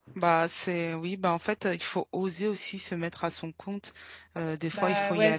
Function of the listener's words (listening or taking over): taking over